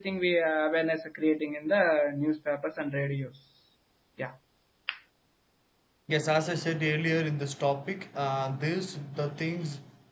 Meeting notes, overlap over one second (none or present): none